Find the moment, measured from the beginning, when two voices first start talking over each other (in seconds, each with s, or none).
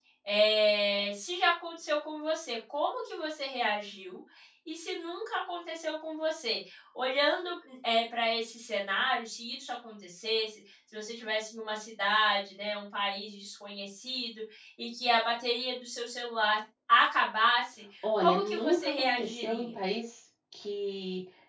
18.0 s